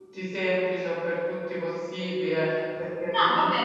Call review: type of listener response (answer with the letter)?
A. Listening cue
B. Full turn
B